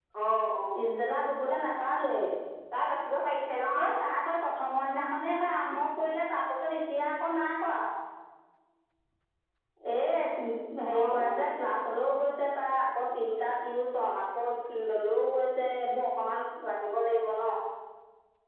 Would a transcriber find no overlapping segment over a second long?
Yes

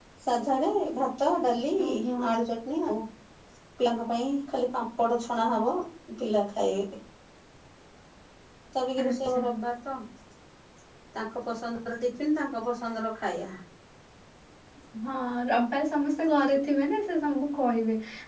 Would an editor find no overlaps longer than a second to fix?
Yes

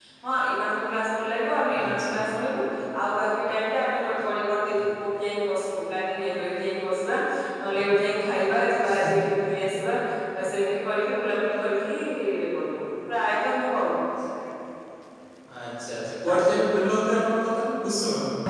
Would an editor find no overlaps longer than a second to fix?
Yes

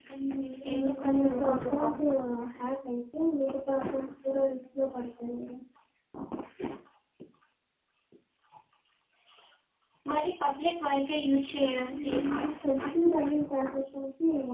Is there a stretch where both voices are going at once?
Yes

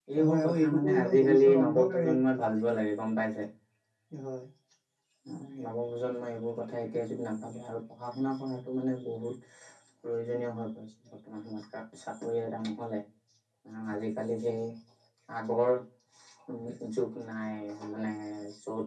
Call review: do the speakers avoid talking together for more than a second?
No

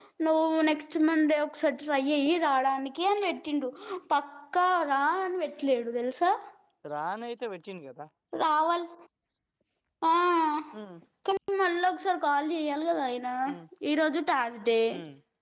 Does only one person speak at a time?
Yes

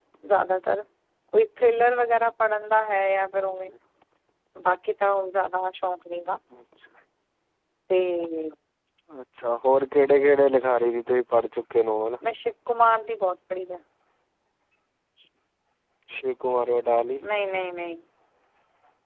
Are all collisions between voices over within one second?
Yes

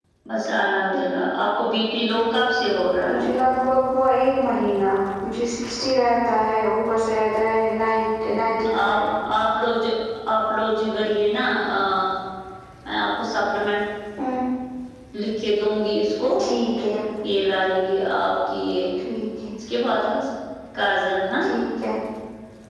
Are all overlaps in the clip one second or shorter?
Yes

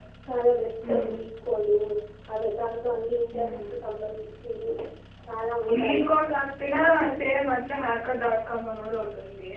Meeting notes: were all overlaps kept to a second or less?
Yes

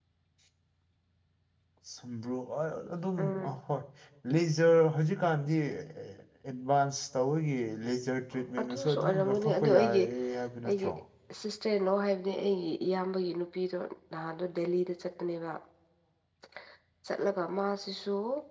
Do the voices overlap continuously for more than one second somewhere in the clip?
Yes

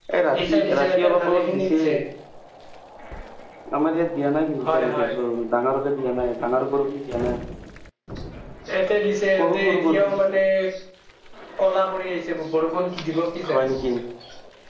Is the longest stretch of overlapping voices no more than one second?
No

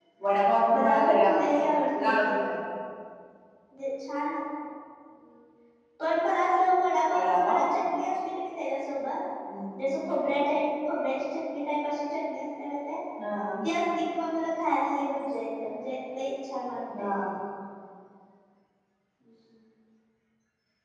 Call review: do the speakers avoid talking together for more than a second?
No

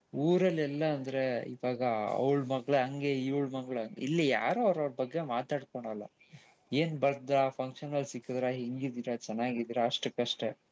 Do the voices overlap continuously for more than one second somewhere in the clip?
No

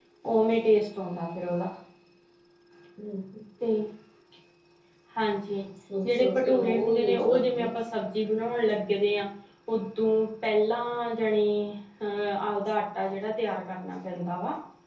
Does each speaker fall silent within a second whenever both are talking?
No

